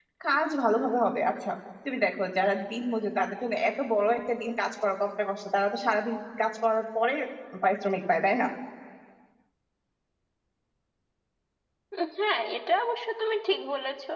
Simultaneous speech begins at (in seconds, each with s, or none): none